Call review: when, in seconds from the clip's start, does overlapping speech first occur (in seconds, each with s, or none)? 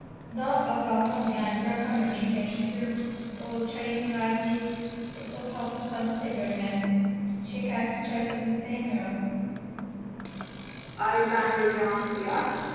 none